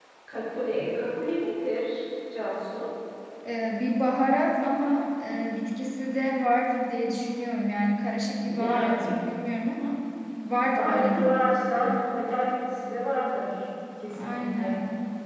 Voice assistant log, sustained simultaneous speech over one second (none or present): present